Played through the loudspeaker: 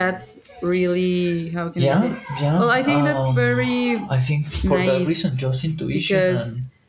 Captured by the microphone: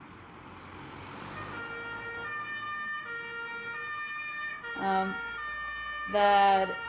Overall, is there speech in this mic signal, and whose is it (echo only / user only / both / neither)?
user only